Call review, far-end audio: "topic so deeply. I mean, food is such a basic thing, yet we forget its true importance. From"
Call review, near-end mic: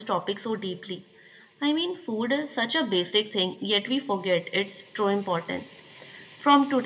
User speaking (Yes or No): No